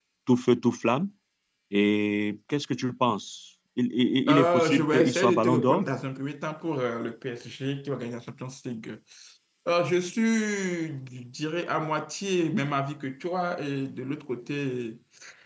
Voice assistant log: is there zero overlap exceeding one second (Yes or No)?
No